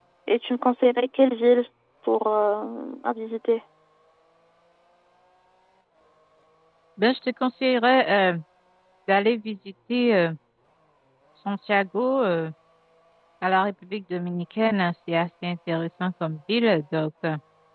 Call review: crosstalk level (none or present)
none